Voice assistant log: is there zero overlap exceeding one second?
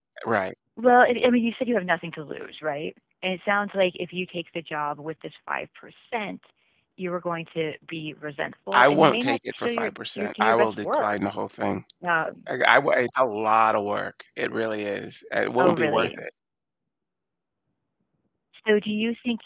No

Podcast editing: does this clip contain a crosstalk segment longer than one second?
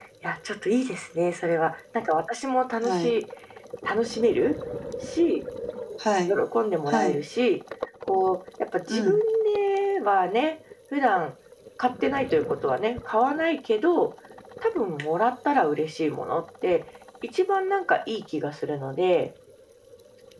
No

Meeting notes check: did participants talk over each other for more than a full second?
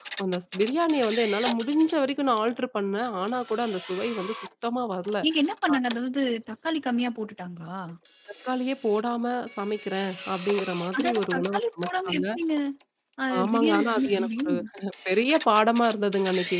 Yes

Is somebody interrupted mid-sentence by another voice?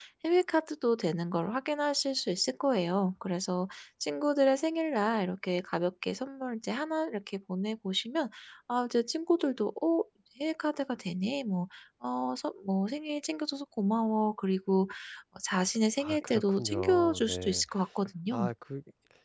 Yes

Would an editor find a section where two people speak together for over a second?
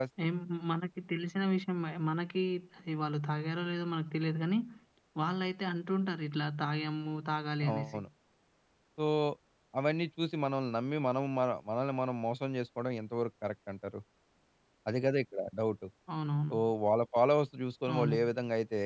No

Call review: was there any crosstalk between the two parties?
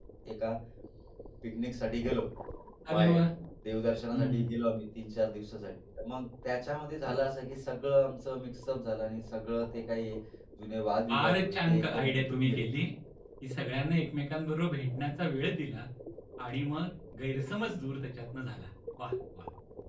Yes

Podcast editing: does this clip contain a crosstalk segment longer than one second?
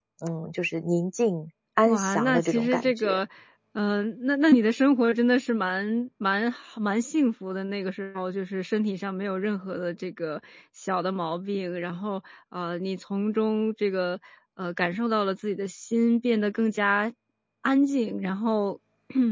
Yes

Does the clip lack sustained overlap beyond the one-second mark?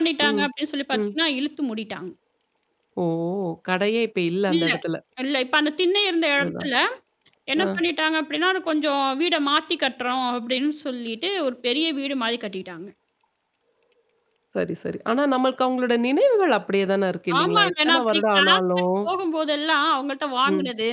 No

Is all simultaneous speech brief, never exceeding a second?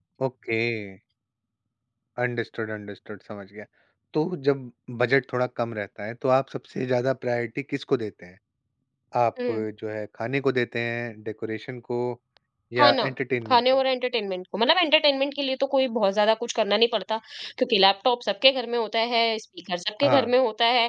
Yes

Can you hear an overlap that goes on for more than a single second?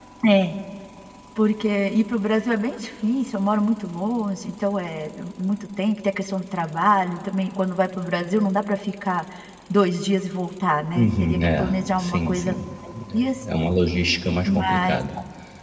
Yes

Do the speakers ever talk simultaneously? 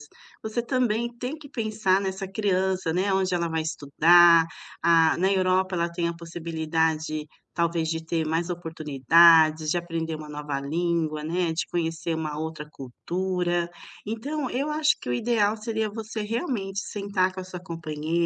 No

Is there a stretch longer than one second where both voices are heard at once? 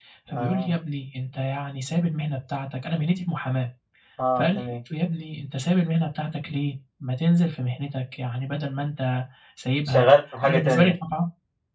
No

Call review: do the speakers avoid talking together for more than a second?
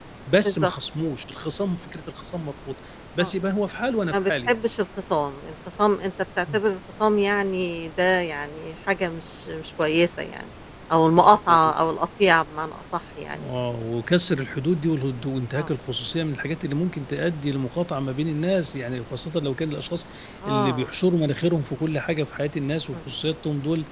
Yes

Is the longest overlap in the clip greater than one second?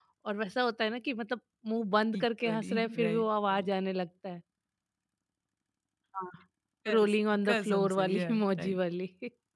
Yes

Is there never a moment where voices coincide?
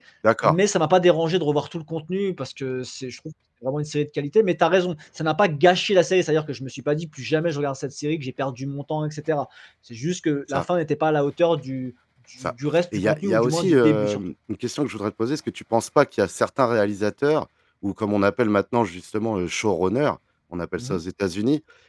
No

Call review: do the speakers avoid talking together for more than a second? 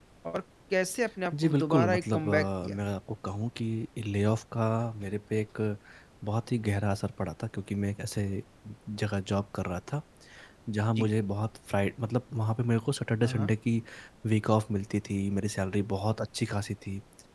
No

